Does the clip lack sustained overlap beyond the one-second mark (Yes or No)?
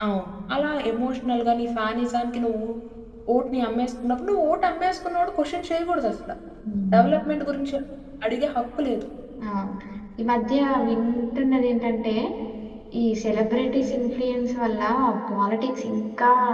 Yes